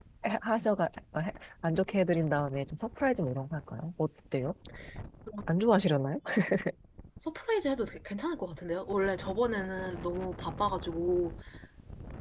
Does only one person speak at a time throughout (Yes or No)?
Yes